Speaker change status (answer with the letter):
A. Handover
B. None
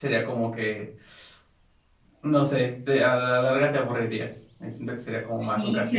A